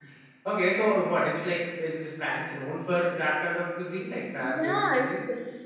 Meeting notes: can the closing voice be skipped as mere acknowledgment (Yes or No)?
No